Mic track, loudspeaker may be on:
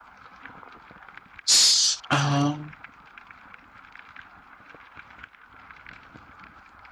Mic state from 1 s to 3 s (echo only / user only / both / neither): user only